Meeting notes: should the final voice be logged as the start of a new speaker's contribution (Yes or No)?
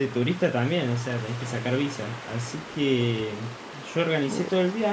No